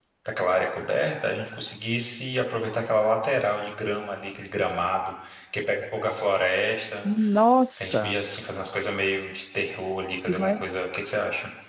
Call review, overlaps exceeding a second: none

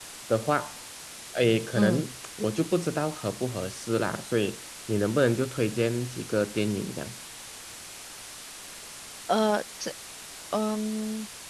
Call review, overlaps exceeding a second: none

